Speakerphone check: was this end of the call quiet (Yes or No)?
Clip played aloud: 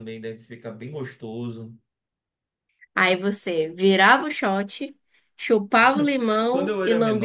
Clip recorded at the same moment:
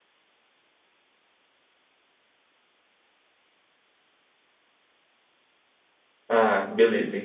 No